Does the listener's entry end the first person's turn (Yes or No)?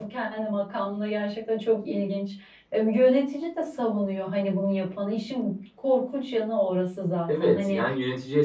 Yes